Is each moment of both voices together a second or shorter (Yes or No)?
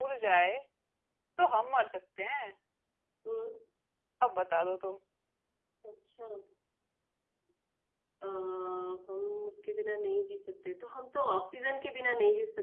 Yes